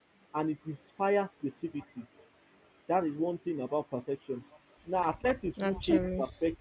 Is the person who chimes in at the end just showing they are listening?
Yes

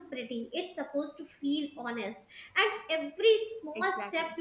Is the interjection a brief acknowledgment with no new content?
Yes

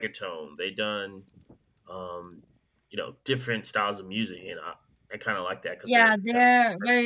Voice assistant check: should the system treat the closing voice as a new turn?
Yes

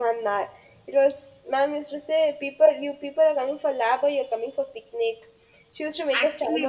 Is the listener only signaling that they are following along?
No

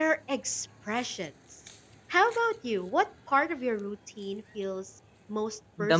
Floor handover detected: Yes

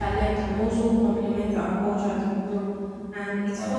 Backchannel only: Yes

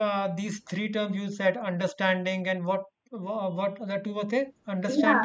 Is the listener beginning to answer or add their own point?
Yes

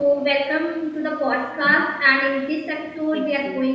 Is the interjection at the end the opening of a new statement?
No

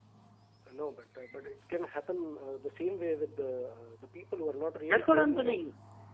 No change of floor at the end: No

